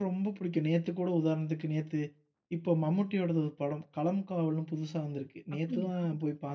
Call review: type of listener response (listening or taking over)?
listening